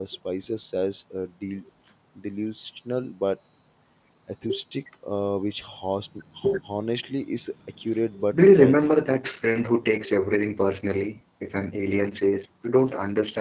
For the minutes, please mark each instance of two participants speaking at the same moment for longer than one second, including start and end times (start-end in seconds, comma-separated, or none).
none